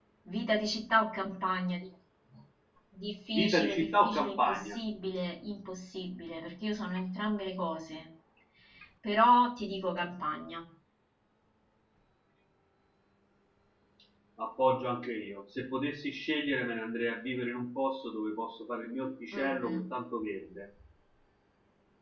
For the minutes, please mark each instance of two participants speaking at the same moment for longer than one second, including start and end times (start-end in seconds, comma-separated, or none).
3.3-4.8